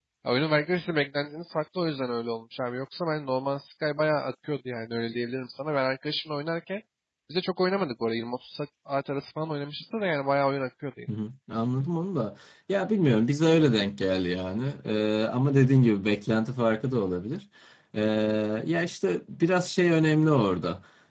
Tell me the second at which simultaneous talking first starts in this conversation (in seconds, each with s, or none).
none